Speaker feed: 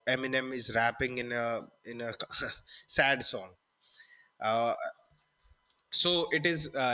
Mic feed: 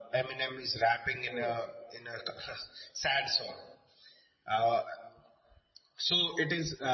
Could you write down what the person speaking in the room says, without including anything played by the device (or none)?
yes